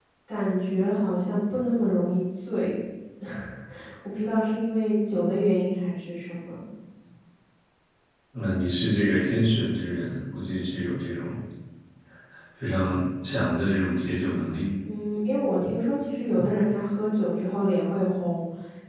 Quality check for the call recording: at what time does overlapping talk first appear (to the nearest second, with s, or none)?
none